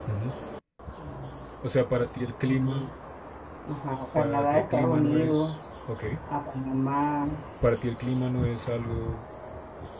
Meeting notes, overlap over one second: present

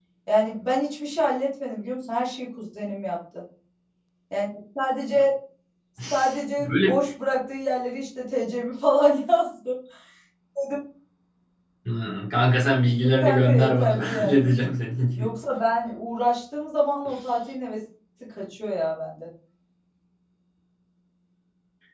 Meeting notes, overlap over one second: present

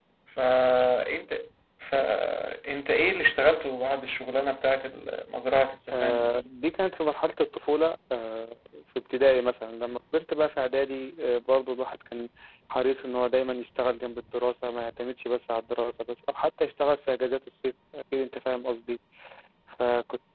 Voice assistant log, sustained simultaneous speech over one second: none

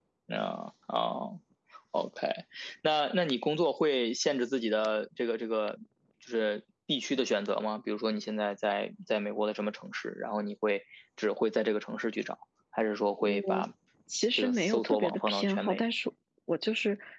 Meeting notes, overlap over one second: present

